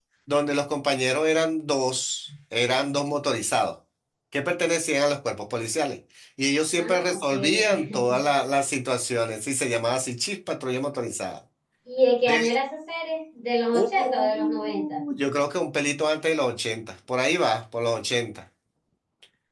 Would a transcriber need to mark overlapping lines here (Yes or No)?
Yes